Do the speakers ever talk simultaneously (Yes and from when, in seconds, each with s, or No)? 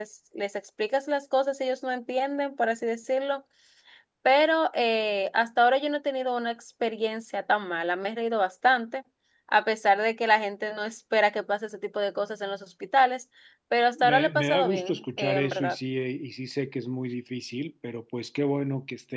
Yes, from 13.9 s